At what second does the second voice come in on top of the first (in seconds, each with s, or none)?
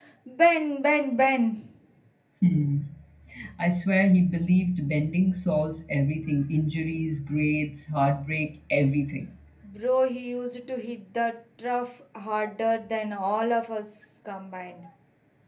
none